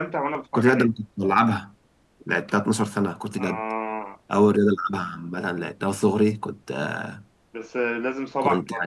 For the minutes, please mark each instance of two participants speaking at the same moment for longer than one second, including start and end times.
none

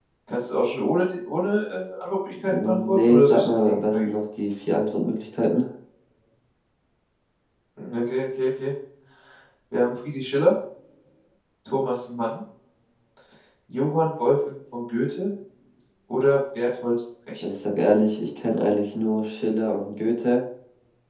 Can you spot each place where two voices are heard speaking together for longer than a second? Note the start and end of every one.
2.5-4.1

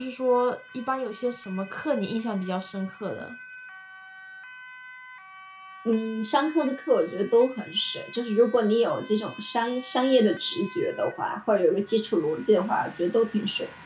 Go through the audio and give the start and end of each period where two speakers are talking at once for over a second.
none

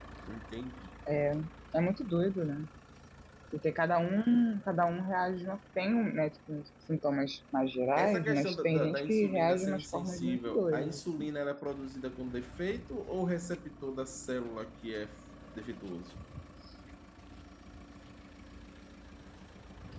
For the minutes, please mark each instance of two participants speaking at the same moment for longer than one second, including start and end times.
8.0-11.3

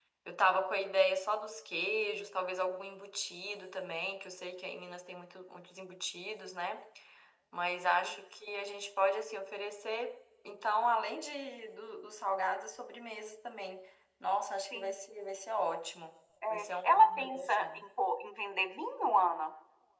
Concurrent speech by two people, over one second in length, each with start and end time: 16.5-17.9

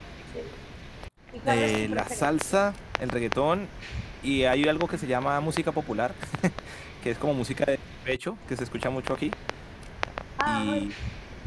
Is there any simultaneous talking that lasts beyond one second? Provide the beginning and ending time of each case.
1.4-2.7

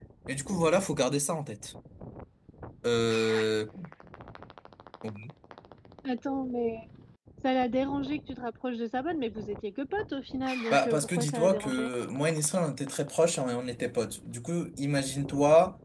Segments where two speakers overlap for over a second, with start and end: 10.7-11.9

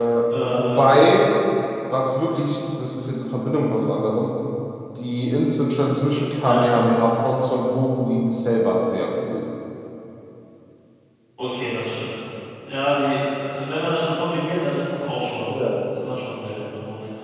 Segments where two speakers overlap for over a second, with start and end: none

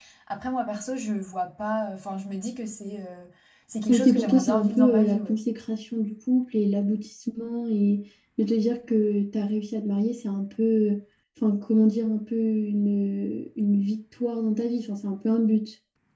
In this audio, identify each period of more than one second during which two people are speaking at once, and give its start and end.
3.9-5.4

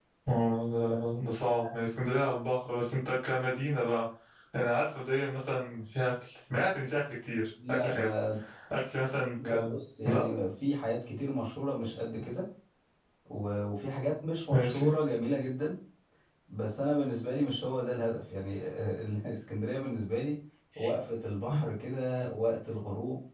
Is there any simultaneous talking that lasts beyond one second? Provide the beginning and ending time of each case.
none

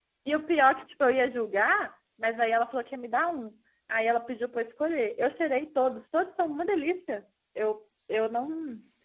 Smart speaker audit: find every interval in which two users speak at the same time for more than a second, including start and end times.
none

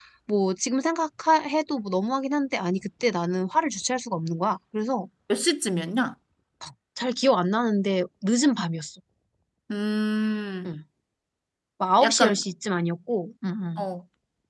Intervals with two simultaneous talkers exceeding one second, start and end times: none

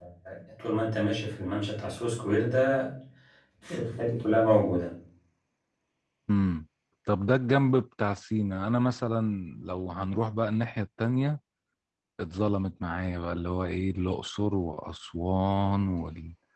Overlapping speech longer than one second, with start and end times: none

